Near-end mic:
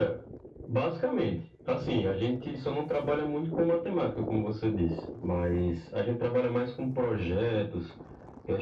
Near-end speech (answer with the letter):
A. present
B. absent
B